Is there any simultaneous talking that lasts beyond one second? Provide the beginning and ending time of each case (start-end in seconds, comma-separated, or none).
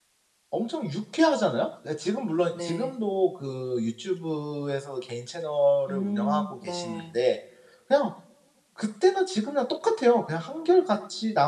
5.9-7.2